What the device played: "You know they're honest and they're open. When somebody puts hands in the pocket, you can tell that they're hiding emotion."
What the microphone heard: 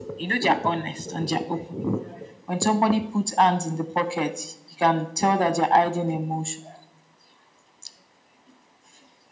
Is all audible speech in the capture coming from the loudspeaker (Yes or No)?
Yes